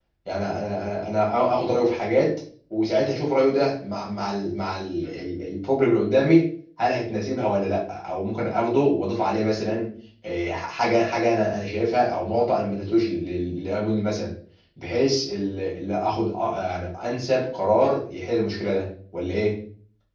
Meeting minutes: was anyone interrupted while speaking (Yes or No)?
No